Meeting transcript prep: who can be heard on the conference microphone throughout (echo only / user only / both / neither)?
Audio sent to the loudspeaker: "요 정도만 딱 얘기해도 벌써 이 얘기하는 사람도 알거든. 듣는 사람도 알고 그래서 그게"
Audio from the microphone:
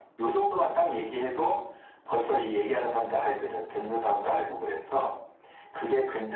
both